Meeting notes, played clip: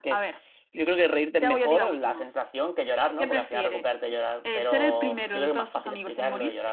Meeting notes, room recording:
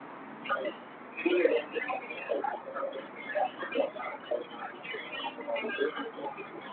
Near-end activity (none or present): none